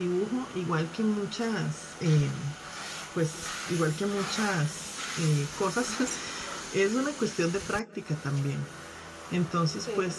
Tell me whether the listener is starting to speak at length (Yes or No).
No